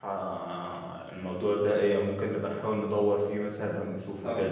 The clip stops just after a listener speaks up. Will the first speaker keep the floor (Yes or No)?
No